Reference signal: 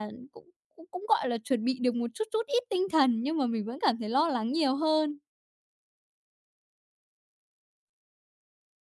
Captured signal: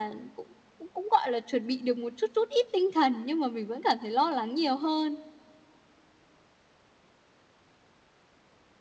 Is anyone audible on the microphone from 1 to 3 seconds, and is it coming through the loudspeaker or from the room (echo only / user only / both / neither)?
echo only